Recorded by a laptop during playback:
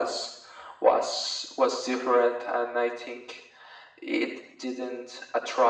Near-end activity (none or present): none